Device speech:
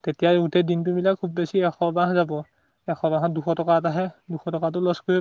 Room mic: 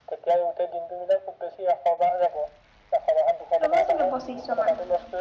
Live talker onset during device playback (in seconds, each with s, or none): 3.6 s